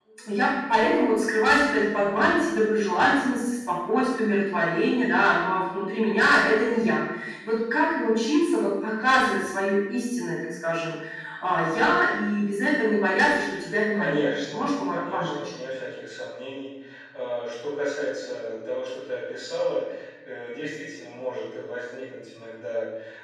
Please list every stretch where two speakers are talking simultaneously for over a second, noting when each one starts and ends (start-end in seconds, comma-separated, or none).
14.0-15.4